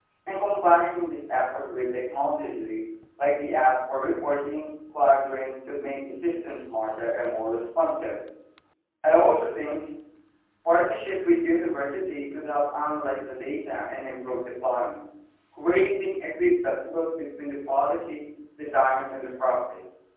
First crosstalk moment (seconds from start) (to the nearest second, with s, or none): none